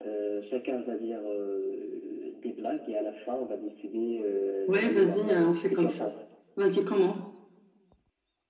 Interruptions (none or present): present